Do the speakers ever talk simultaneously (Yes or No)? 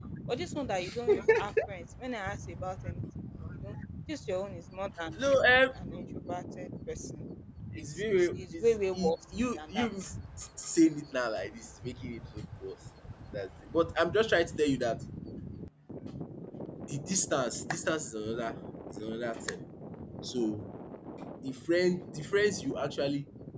Yes